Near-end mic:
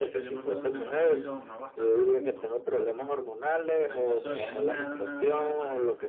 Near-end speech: present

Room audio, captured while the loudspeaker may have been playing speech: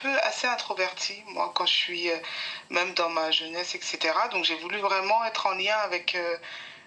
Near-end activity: none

